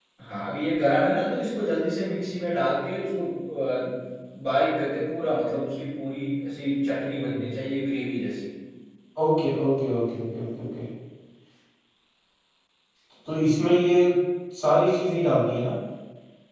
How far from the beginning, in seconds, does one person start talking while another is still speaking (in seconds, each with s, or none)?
none